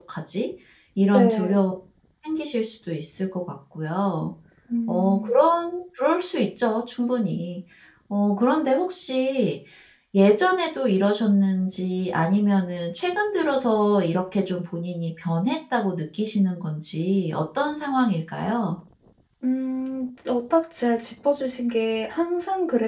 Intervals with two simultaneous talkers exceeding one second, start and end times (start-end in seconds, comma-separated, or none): none